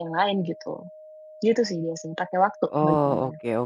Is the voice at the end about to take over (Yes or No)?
Yes